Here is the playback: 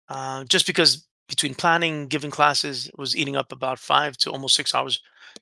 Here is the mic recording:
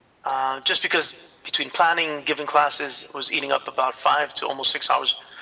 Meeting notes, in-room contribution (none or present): none